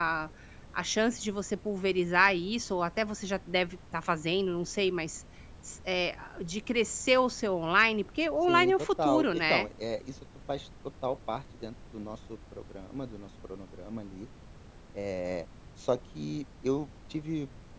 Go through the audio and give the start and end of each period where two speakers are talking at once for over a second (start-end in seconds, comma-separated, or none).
8.5-9.7